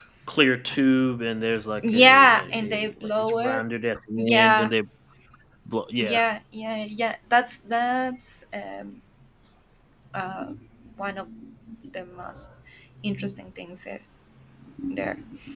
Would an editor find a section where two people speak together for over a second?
Yes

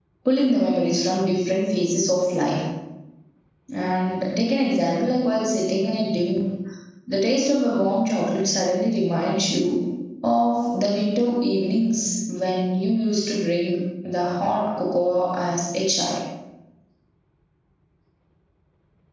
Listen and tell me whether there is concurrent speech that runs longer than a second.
No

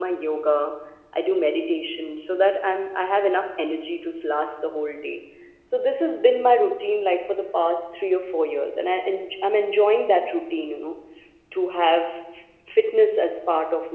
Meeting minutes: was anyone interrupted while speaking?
No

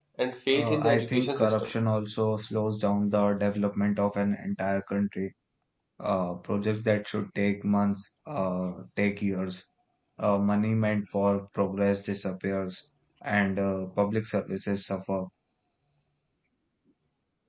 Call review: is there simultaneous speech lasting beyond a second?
Yes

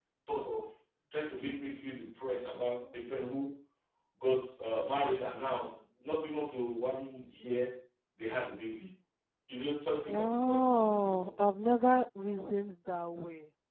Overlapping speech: Yes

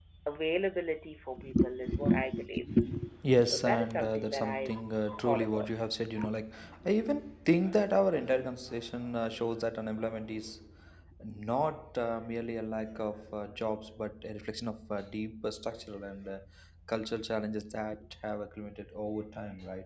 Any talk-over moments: Yes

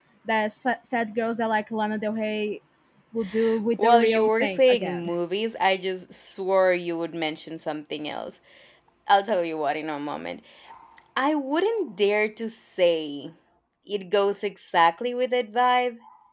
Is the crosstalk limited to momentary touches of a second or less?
No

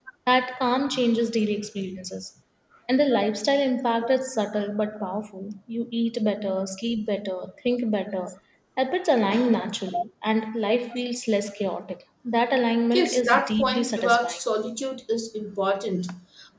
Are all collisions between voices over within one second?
No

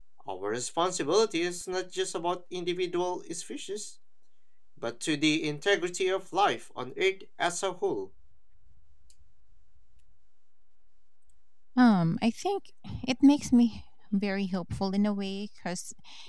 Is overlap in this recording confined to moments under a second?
Yes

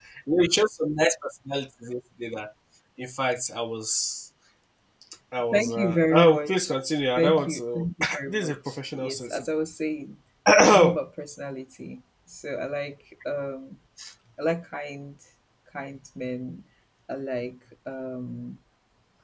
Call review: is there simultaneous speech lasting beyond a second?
Yes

